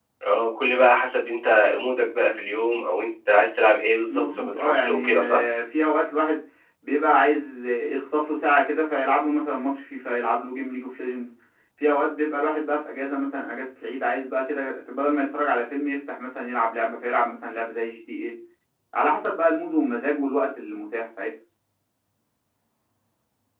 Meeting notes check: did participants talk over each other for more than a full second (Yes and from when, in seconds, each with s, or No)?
Yes, from 4.1 s